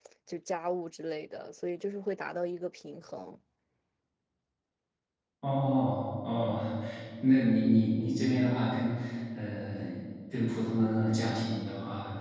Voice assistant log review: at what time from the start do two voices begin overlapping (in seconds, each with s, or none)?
none